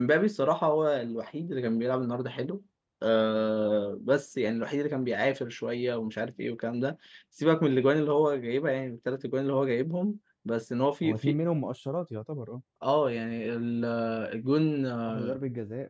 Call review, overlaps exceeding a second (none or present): none